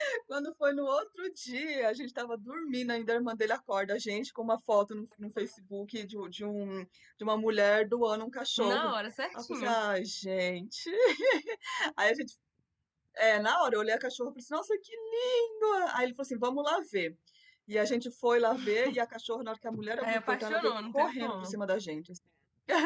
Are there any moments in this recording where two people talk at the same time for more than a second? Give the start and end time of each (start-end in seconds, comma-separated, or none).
20.0-21.6